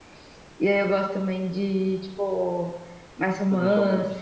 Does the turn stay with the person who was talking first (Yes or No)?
Yes